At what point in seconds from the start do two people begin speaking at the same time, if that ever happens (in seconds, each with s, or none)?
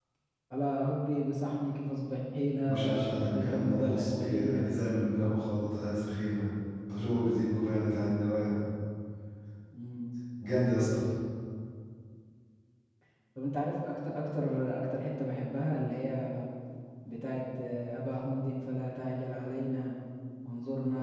2.7 s